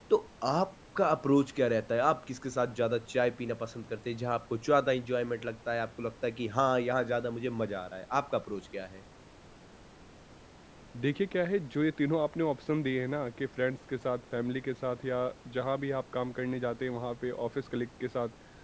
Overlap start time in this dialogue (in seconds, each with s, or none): none